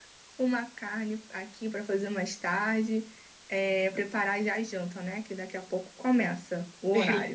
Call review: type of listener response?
taking over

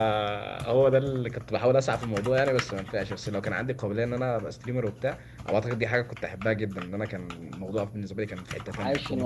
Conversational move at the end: taking over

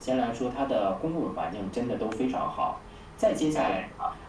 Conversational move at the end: listening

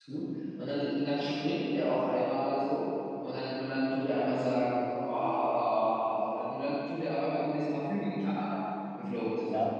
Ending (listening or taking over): taking over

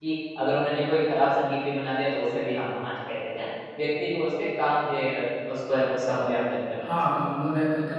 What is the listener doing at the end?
taking over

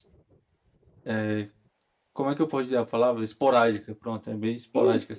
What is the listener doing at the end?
taking over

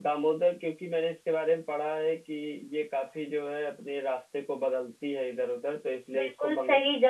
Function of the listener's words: taking over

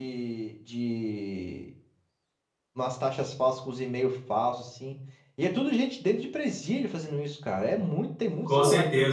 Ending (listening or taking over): taking over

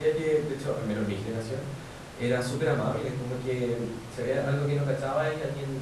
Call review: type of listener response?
listening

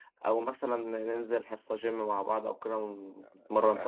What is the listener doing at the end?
taking over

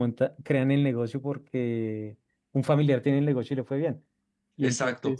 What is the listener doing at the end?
listening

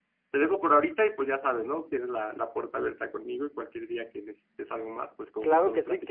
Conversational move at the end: taking over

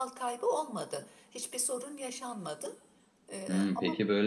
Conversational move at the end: taking over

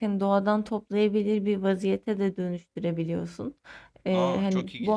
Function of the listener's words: taking over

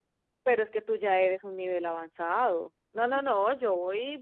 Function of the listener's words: listening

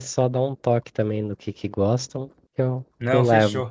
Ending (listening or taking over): taking over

